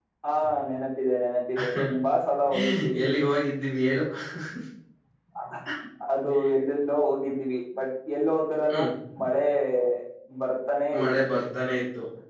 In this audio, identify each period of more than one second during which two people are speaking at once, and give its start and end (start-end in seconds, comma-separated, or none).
none